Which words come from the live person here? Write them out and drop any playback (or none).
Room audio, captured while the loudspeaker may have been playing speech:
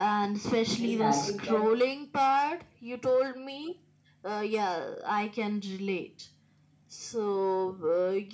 this habit can